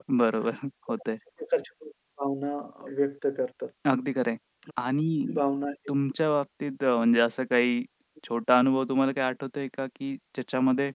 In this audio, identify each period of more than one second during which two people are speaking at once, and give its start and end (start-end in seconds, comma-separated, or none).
none